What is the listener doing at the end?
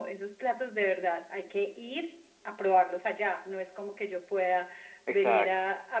listening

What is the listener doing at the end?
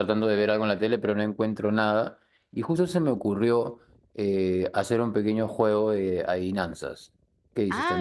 taking over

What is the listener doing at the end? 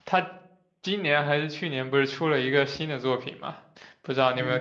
listening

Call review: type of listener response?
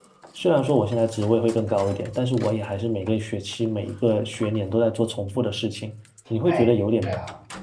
listening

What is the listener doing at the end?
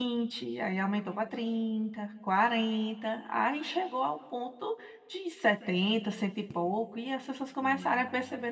taking over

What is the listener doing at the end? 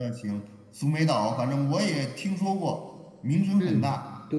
taking over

